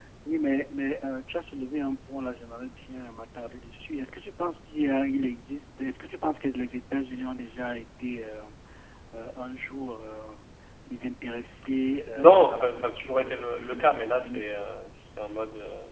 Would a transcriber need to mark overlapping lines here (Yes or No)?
Yes